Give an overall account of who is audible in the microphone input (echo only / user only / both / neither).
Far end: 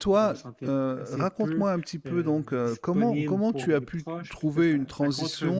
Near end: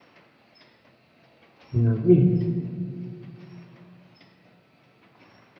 user only